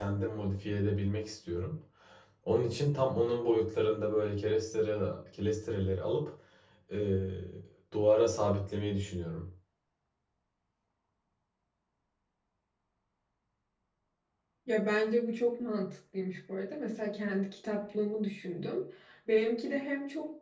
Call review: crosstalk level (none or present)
none